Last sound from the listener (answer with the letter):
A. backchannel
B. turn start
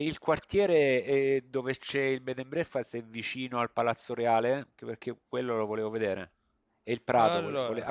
A